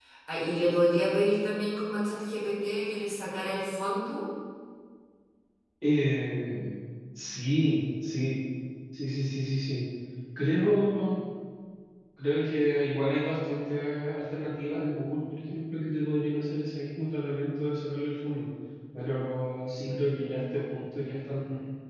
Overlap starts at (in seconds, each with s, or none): none